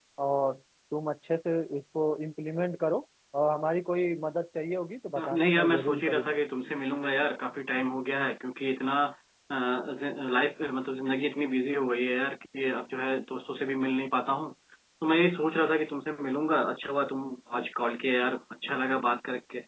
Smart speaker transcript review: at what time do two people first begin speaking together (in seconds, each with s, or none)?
5.2 s